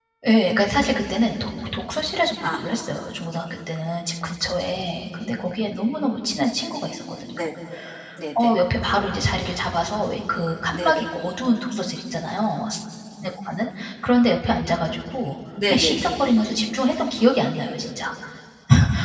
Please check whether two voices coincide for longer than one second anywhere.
No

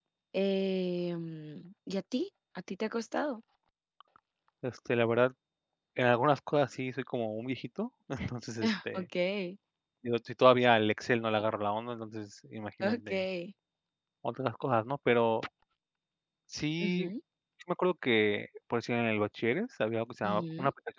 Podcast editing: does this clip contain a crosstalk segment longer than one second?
No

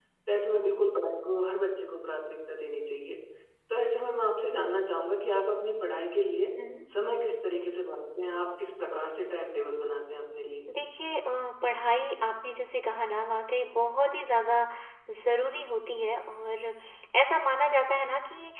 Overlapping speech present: No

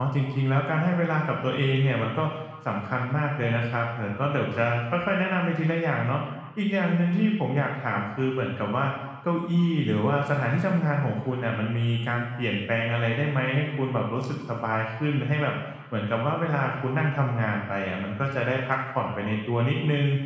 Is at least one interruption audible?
No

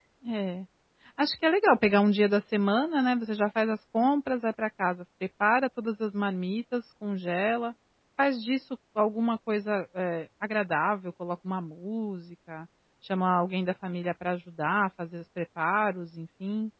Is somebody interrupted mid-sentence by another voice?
No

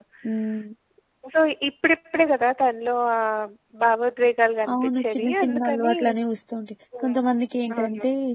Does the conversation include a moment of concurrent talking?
Yes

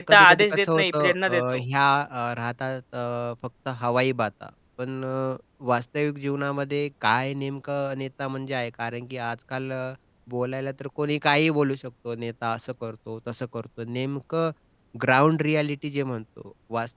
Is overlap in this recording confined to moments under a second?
No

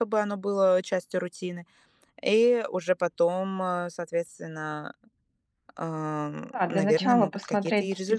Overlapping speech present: Yes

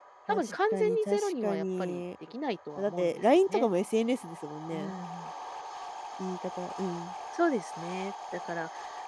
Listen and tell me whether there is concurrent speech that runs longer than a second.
Yes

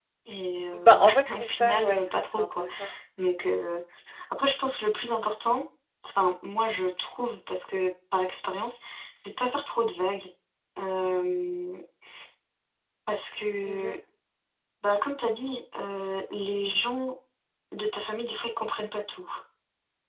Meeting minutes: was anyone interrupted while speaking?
Yes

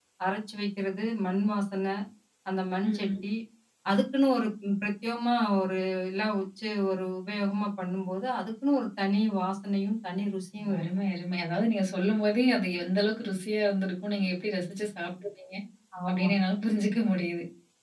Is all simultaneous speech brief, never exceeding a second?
Yes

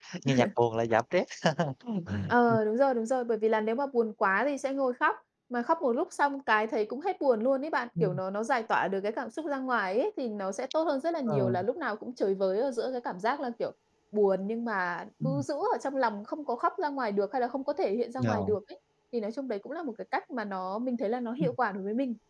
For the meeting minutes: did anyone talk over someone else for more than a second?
No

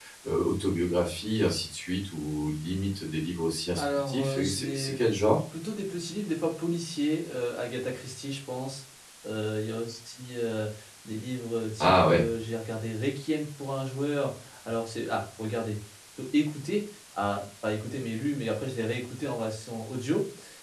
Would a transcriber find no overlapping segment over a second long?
No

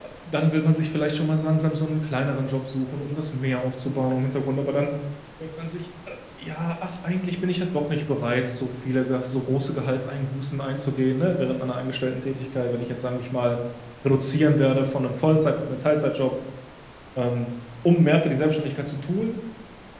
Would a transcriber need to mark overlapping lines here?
No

